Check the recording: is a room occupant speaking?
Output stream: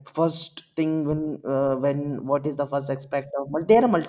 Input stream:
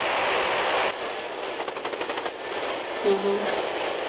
Yes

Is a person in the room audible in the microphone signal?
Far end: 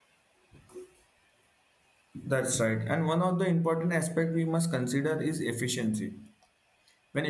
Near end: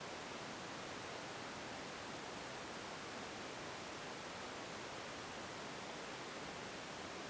No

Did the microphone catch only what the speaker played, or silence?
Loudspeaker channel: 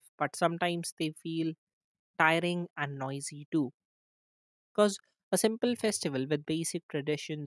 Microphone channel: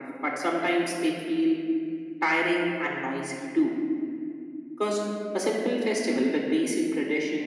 Yes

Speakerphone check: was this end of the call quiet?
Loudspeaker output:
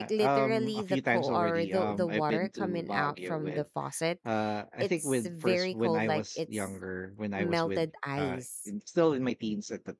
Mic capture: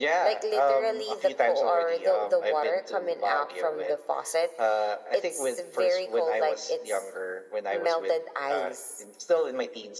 Yes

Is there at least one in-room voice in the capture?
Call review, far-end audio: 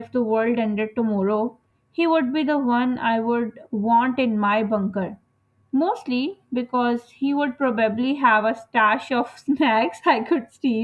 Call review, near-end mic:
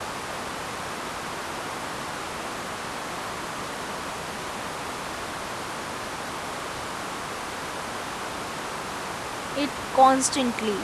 Yes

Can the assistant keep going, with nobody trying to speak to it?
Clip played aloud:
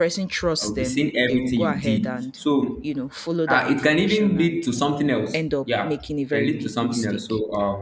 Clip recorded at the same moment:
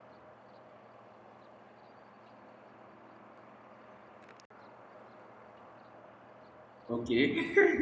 No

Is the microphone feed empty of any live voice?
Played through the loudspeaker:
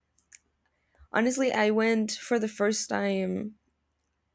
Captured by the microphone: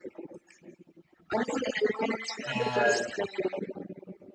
No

